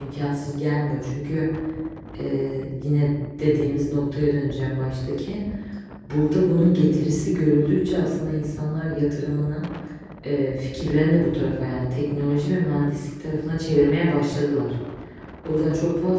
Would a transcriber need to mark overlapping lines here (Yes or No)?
No